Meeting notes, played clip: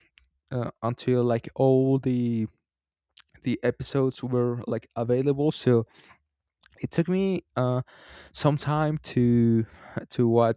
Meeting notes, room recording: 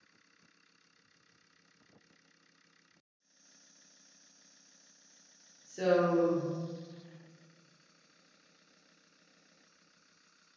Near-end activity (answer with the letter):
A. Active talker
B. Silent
A